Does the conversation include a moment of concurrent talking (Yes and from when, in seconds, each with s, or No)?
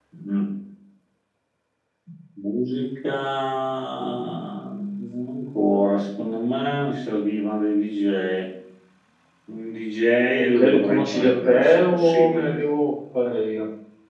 Yes, from 10.4 s